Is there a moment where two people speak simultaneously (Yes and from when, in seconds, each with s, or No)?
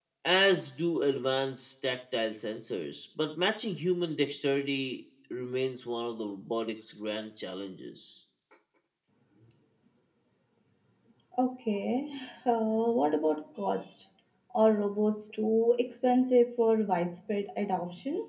No